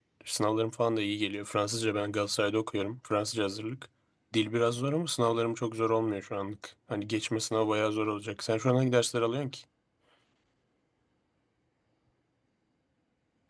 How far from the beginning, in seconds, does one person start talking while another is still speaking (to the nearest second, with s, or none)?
none